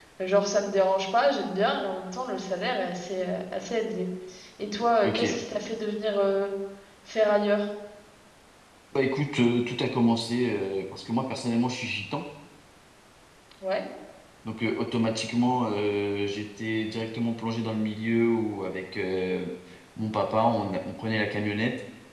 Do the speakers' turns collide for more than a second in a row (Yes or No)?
No